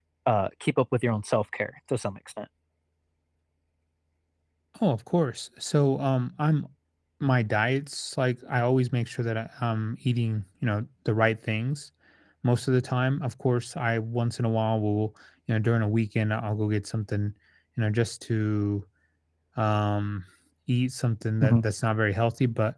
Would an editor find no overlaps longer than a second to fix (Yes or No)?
Yes